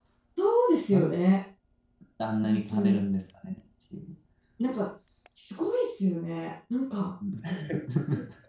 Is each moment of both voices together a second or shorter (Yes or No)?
Yes